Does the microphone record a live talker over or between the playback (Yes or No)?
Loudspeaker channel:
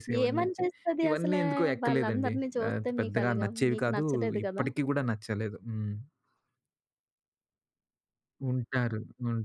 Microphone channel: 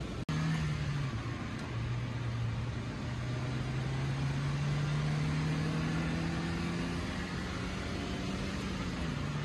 No